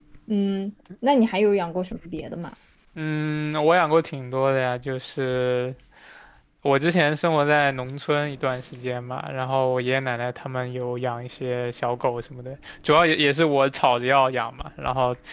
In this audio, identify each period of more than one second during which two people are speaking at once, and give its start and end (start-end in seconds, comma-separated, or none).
none